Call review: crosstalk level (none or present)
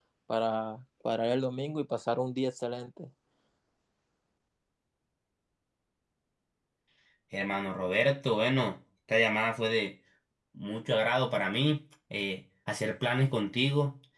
none